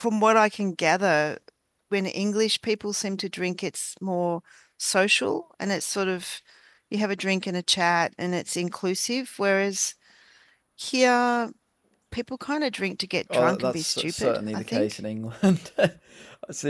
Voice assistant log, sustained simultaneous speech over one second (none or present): present